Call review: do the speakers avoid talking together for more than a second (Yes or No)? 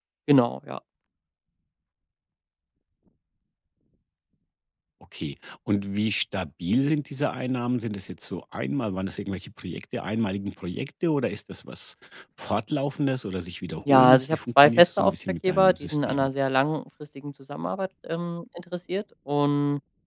No